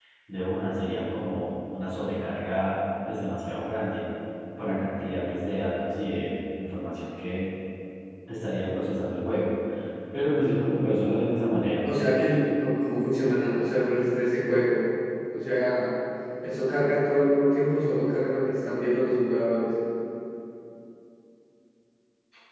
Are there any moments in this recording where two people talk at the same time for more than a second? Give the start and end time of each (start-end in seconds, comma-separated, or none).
none